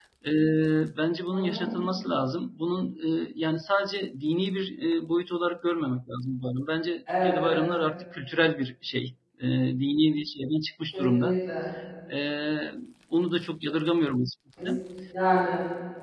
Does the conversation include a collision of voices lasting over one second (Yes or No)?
No